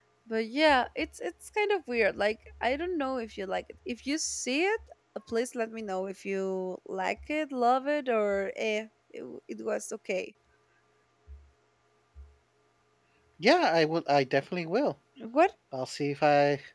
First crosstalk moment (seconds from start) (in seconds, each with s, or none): none